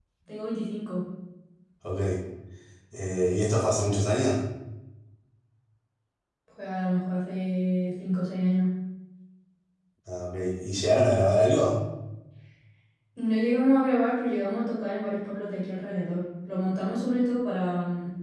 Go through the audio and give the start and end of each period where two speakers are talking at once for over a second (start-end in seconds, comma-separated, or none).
none